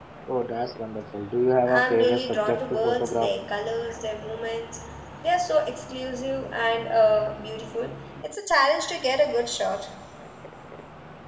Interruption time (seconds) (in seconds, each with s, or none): 1.6 s